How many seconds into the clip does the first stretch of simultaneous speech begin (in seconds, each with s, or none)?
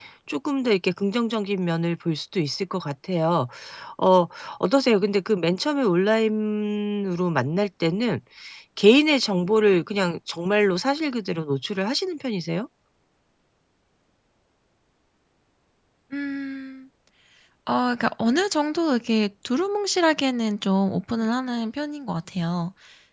none